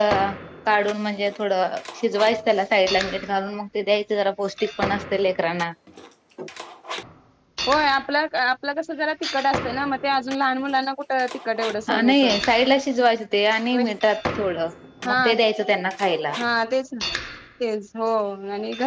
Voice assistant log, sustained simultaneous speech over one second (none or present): none